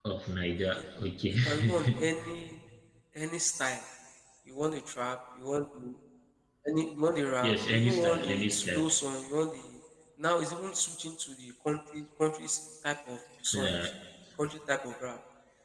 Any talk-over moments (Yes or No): Yes